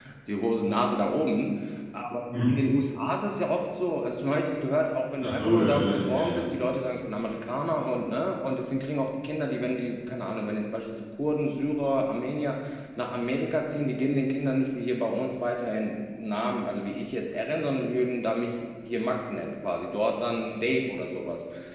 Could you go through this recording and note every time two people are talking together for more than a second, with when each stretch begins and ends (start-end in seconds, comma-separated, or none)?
5.2-6.4